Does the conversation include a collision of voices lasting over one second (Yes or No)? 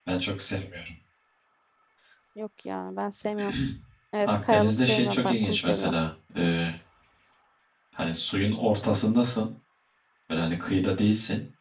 Yes